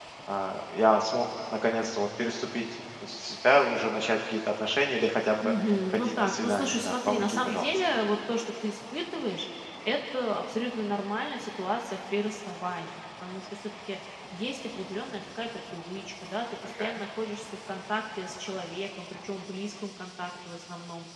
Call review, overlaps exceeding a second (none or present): present